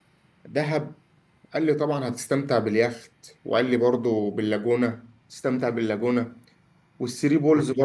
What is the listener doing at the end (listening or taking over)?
listening